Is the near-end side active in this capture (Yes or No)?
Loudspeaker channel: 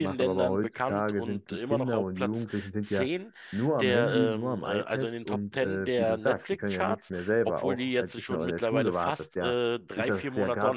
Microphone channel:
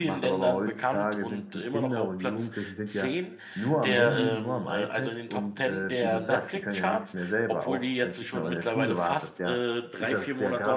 No